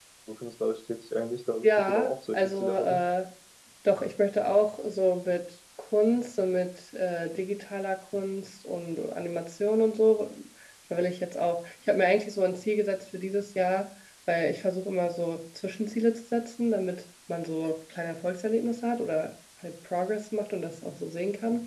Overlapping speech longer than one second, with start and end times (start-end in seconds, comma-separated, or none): 1.6-3.0